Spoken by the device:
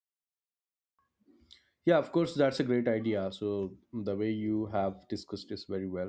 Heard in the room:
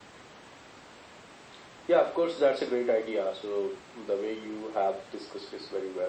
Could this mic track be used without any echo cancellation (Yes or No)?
No